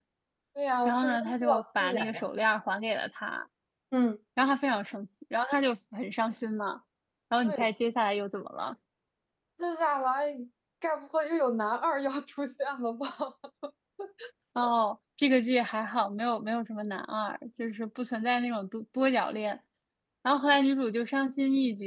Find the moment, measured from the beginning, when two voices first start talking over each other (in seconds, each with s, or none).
0.8 s